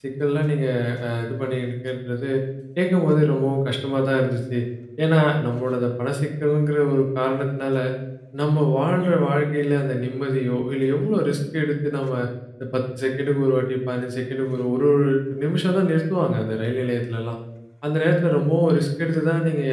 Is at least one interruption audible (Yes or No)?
No